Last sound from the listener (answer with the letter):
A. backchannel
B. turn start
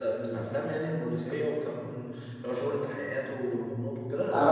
B